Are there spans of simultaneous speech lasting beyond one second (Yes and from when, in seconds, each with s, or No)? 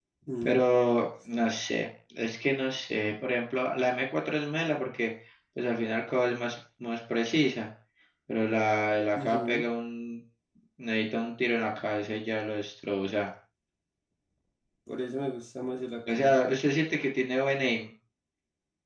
No